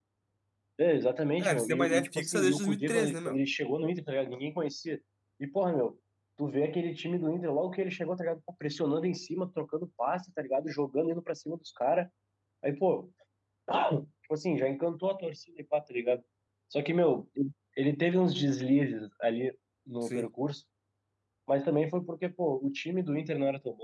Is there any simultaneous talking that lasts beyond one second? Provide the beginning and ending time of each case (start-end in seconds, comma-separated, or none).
1.4-3.4